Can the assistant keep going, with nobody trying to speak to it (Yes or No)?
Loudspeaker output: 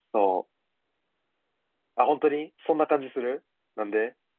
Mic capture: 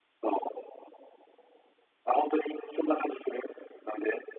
Yes